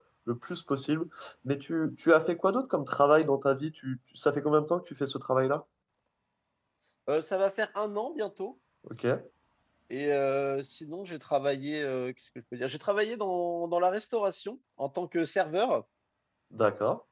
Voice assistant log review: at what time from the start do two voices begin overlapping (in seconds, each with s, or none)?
none